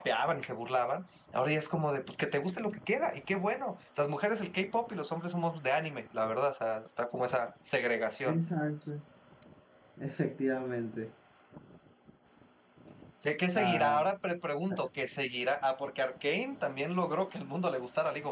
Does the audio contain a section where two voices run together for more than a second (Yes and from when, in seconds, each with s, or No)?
No